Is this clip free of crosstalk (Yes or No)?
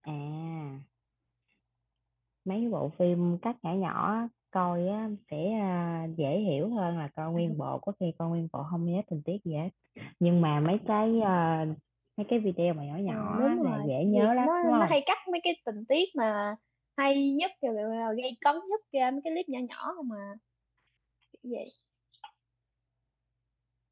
No